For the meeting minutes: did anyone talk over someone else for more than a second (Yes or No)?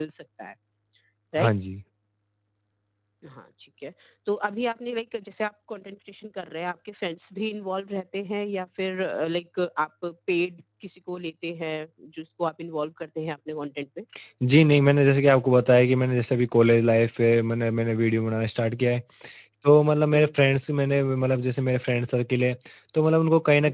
No